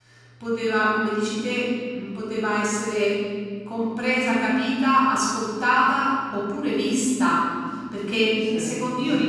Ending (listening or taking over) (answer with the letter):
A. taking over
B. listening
B